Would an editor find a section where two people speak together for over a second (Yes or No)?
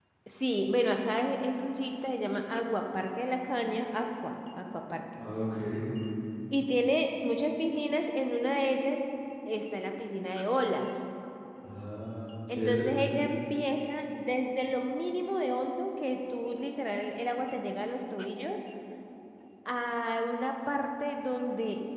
No